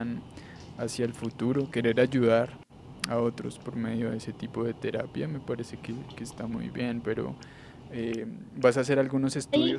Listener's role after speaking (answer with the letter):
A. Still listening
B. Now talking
A